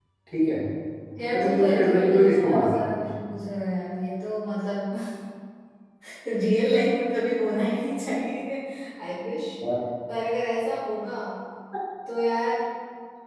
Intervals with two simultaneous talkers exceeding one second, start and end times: 1.3-2.9

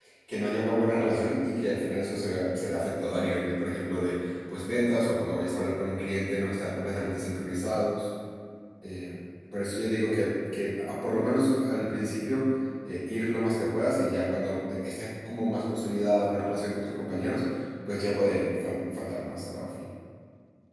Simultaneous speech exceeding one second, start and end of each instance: none

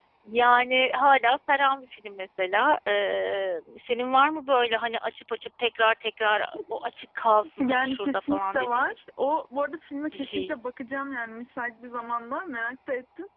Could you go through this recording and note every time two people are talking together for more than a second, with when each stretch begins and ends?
7.6-8.9

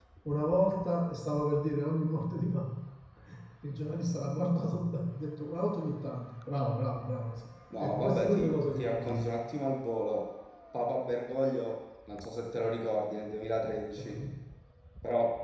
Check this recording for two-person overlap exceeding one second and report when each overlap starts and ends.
7.8-9.3

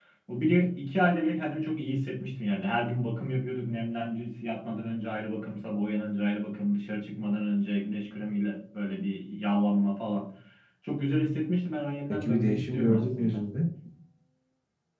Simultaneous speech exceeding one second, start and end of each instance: 12.1-13.4

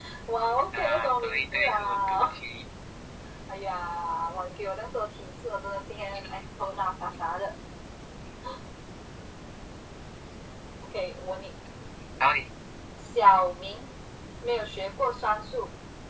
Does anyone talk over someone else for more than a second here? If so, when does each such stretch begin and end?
0.8-2.3

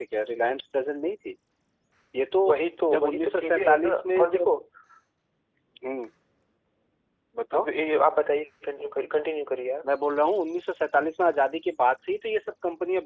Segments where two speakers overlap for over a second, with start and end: 2.9-4.6

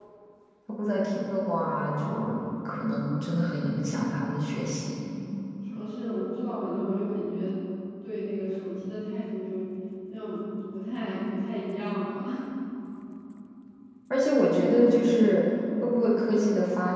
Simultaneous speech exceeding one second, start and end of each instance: none

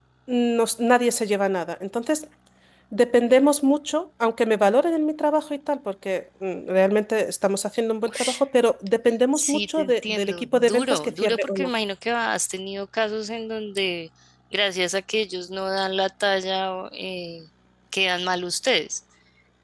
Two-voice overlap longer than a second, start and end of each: 9.3-11.7

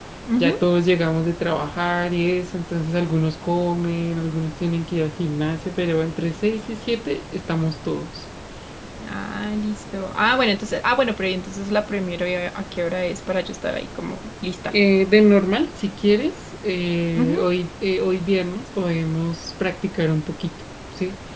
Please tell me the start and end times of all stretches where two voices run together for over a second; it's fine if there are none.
none

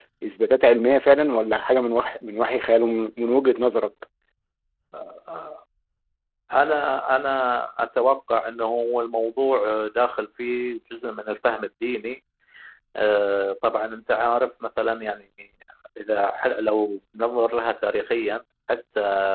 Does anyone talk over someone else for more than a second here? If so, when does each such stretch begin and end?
none

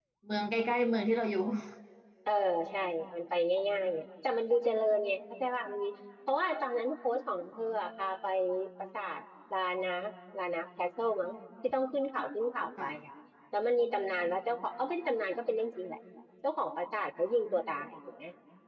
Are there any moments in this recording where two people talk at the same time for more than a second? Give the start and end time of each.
none

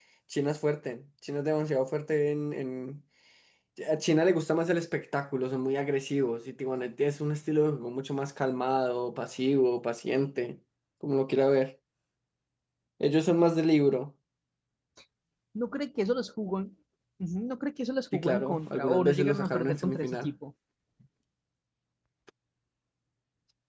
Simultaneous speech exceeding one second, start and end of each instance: 18.1-20.3

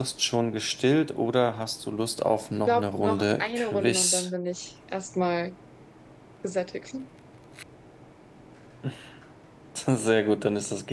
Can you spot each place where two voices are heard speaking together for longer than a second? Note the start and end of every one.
2.7-4.3

